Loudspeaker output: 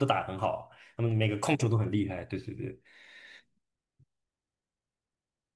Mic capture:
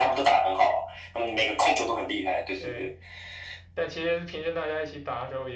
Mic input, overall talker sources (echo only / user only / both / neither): both